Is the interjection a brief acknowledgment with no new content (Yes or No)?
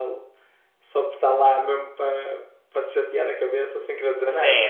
No